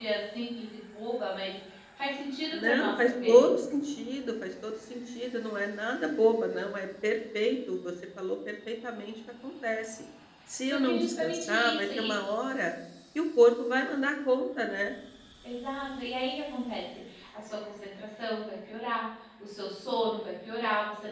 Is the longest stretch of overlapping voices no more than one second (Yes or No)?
No